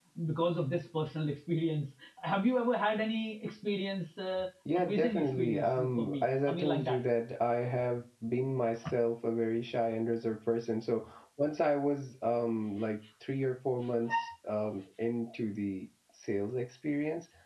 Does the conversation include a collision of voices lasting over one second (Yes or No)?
Yes